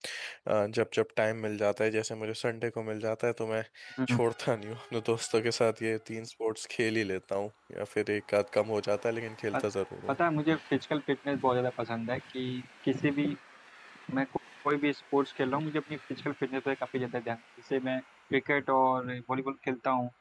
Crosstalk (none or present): none